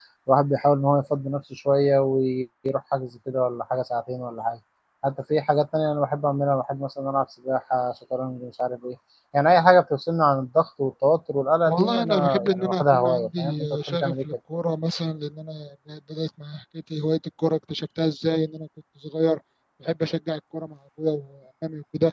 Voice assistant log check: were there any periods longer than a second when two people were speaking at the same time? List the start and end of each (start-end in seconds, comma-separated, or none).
11.7-14.2